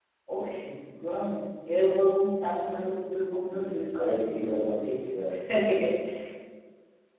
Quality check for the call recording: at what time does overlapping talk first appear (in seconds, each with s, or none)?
3.5 s